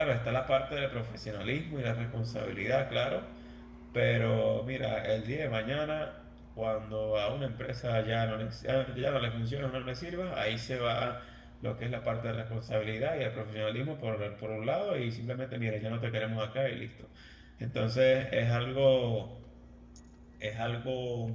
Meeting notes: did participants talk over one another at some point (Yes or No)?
No